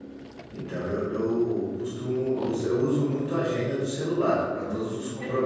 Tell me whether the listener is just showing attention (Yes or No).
No